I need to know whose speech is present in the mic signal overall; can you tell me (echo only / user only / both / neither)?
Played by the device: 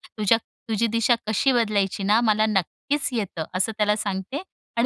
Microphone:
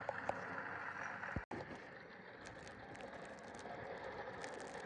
neither